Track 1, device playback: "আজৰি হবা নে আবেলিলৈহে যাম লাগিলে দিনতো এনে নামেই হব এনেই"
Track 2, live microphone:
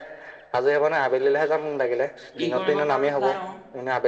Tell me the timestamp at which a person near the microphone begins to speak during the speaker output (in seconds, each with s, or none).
2.4 s